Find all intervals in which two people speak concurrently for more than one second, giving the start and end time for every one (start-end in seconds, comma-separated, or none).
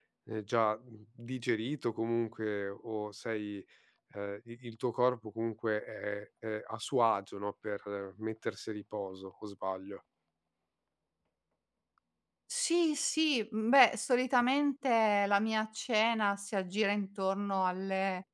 none